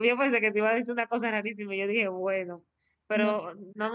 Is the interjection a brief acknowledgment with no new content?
Yes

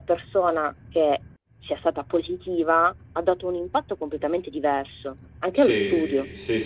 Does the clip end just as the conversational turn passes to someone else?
Yes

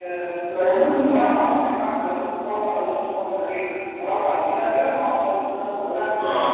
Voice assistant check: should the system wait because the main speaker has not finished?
No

